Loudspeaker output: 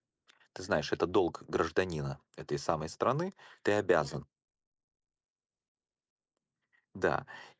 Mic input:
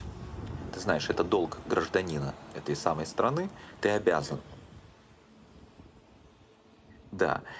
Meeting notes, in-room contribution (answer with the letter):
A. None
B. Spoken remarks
A